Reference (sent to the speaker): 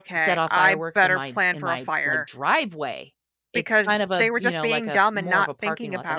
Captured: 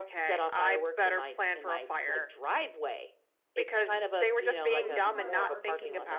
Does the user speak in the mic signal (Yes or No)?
Yes